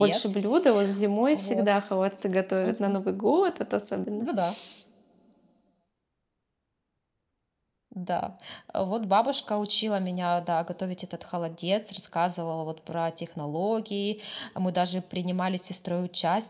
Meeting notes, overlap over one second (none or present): none